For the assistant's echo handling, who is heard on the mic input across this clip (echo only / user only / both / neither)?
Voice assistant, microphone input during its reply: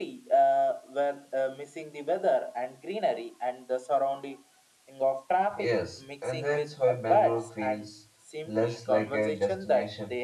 both